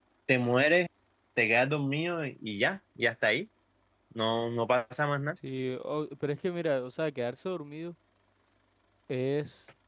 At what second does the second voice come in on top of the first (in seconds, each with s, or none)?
none